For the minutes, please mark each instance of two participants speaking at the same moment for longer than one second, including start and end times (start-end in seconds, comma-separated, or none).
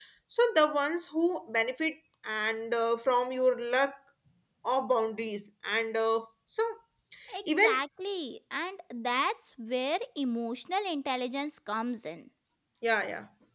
none